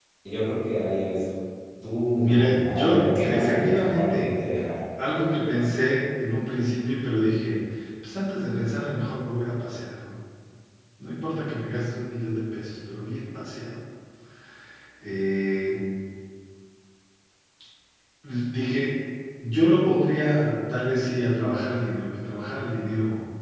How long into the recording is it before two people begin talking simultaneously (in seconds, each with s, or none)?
2.1 s